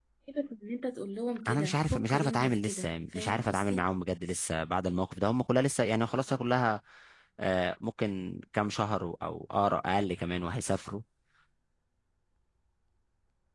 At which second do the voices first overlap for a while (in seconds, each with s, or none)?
1.5 s